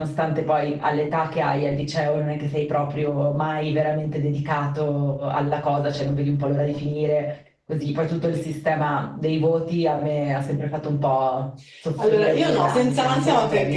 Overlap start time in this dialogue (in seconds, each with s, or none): 12.0 s